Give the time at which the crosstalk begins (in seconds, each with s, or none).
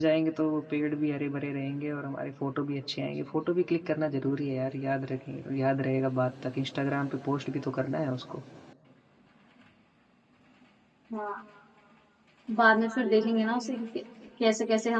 none